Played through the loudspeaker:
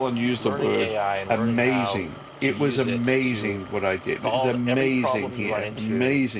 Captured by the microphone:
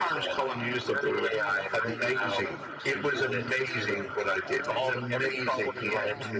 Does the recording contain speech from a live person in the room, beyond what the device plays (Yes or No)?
Yes